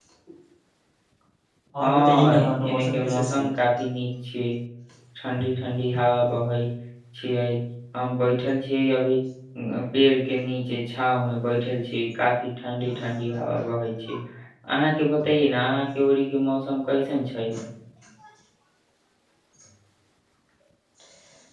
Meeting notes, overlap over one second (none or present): present